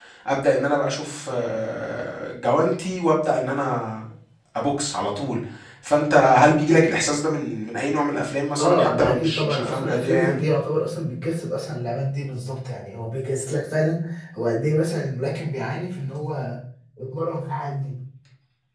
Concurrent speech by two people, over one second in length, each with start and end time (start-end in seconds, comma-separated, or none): 8.6-10.4